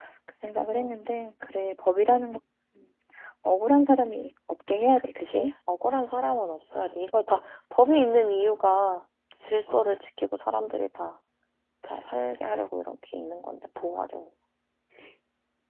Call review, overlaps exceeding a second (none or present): none